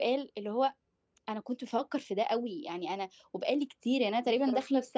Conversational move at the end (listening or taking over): listening